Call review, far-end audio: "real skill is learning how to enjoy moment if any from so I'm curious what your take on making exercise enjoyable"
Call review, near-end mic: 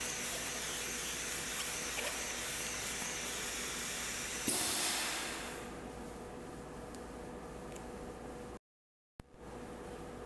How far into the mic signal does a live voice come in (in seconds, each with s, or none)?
none